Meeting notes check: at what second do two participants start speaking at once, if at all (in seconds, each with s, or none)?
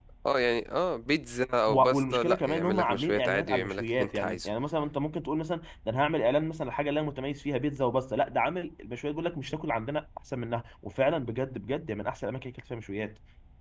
1.7 s